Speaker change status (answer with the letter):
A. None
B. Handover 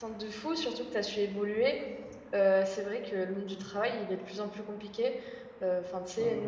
A